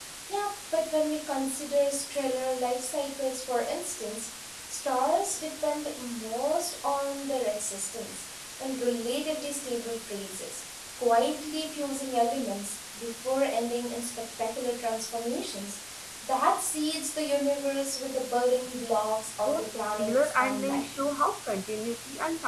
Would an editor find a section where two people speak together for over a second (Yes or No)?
Yes